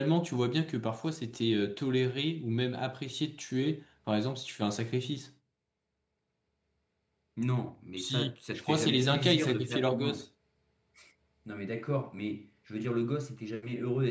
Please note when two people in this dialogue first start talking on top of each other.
8 s

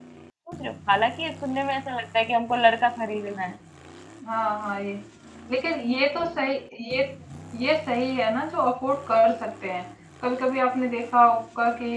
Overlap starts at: none

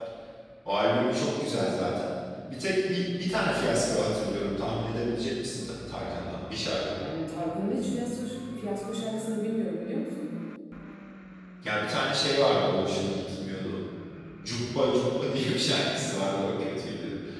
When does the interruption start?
none

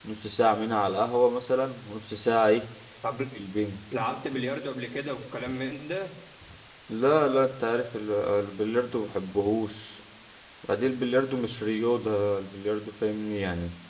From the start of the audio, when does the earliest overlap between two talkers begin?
none

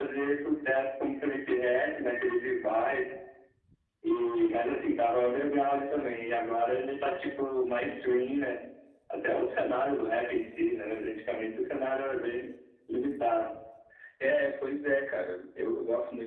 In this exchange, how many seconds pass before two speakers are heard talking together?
none

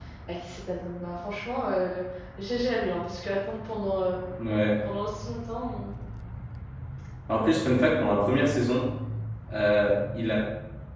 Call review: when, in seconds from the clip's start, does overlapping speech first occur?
none

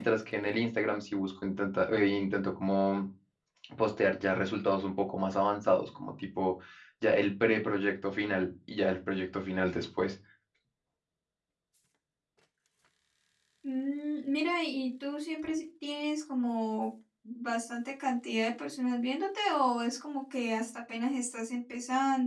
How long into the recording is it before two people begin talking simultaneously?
none

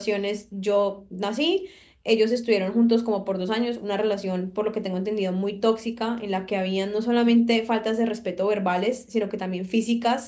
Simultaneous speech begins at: none

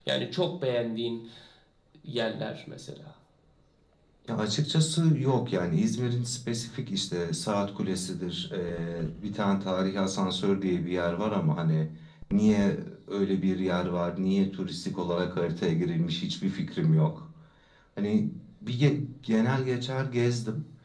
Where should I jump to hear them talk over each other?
none

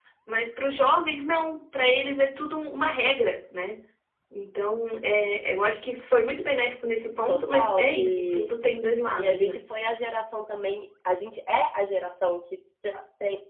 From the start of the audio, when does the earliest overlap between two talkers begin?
7 s

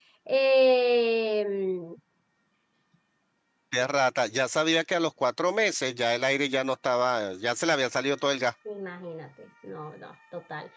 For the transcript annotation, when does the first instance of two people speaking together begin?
none

